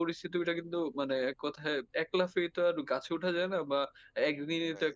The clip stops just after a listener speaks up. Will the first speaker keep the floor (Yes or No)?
Yes